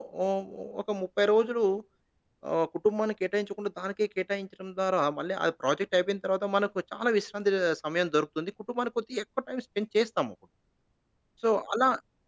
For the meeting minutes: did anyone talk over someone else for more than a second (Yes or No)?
No